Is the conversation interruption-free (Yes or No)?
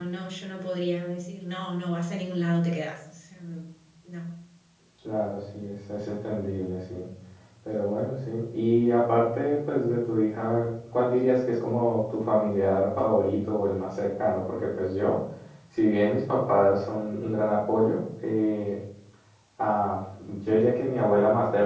Yes